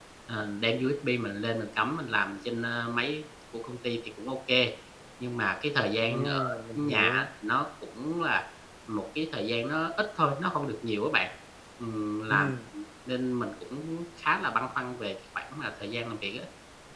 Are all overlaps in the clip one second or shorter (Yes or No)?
No